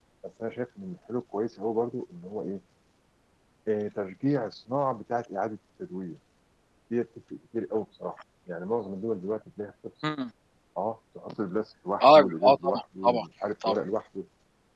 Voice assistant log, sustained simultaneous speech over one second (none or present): present